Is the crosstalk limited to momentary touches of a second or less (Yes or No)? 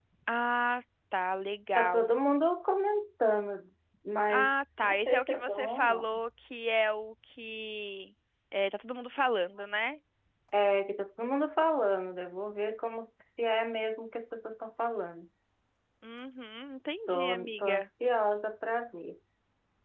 No